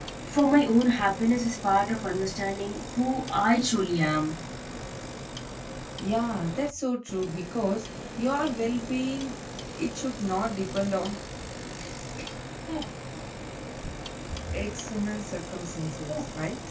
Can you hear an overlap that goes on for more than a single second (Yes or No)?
No